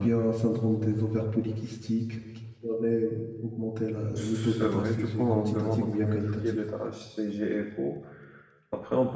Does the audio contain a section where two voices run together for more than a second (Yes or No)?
Yes